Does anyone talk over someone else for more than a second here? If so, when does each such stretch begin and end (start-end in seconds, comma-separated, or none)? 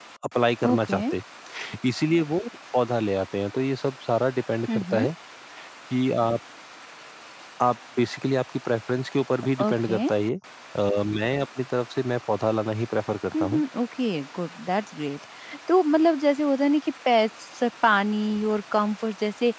none